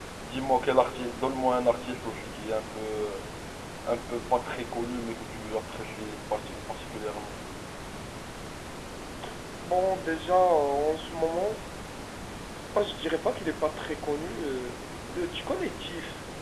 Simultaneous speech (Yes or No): No